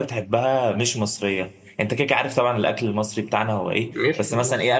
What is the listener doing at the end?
listening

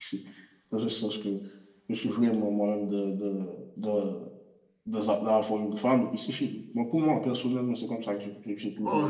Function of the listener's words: taking over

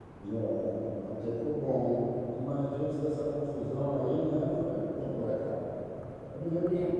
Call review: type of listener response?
listening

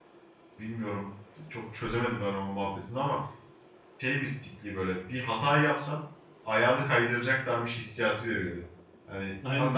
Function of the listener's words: listening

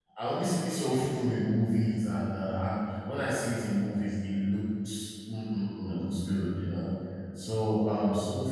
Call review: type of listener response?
listening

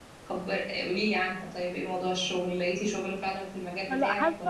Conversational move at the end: taking over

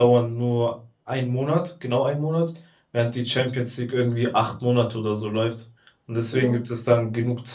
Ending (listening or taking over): listening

